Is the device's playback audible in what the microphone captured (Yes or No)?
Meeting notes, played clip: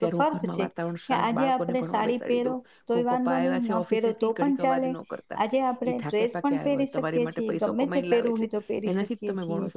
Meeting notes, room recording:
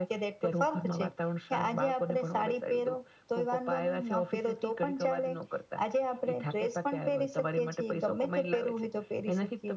Yes